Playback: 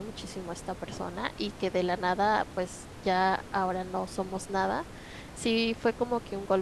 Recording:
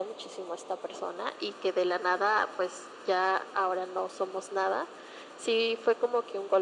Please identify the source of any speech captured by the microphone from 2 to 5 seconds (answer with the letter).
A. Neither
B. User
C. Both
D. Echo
D